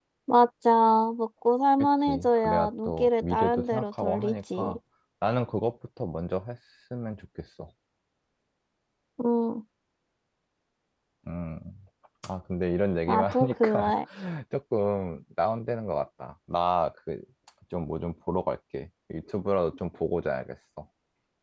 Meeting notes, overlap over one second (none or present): present